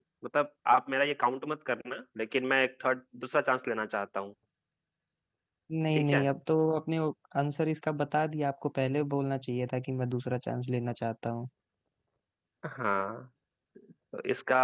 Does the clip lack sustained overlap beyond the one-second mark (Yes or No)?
Yes